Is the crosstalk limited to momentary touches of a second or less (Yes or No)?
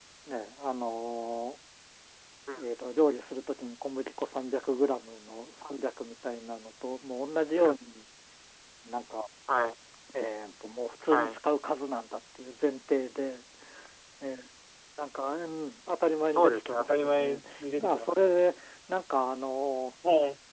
No